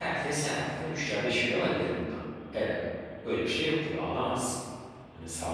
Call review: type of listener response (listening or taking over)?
listening